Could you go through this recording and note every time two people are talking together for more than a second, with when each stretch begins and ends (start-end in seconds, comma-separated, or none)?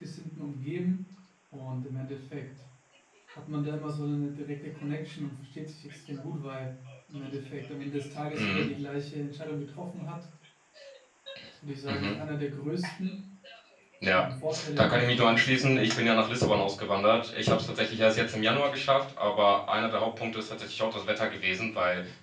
14.8-16.0